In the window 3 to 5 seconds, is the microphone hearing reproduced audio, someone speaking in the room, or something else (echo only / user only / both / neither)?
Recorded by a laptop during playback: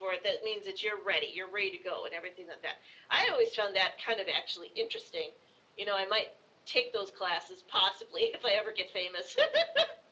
echo only